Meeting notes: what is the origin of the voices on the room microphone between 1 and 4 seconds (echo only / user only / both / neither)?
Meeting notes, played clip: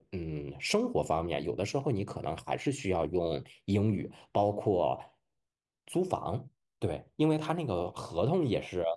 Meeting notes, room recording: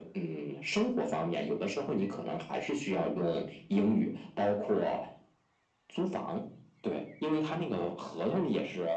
echo only